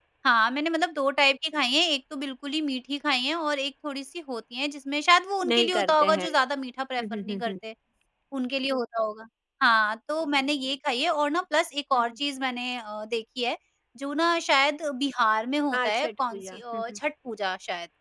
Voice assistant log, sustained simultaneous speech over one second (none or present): present